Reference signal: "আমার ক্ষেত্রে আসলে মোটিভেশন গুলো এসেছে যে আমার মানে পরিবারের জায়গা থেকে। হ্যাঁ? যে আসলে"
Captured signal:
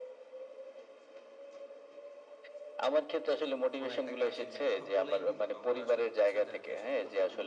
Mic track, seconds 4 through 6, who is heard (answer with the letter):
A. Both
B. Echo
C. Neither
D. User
A